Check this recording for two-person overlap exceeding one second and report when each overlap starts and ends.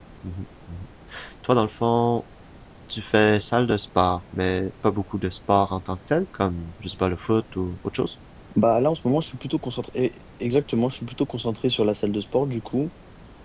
none

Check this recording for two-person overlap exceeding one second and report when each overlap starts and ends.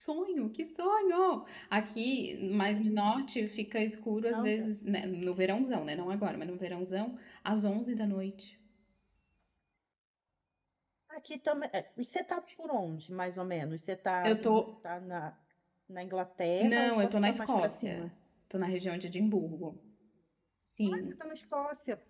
16.6-18.1

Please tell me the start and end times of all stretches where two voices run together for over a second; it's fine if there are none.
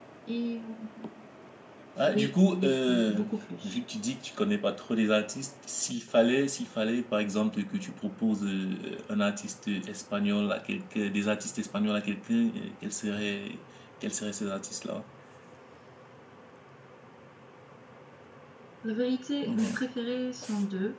2.0-3.2

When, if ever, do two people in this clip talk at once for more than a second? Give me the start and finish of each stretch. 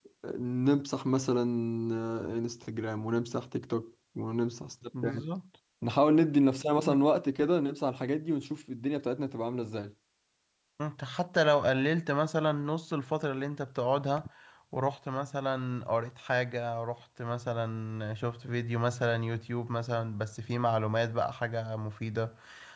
none

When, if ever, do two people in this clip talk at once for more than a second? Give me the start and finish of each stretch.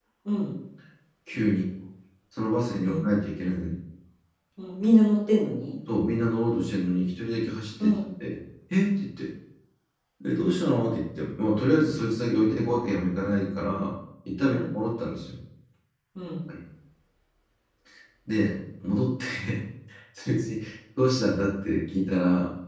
none

